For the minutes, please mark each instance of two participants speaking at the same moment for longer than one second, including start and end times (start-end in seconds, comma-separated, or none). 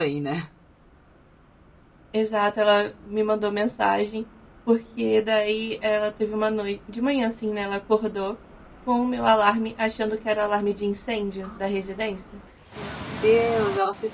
none